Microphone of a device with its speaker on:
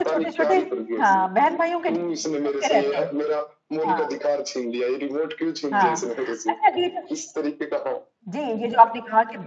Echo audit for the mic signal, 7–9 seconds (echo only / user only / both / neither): both